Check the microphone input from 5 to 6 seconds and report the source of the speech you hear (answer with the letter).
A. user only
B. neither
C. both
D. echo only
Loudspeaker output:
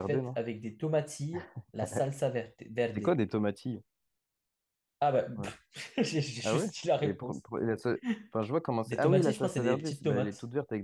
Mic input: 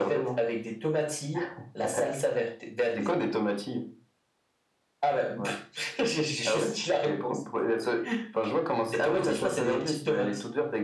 D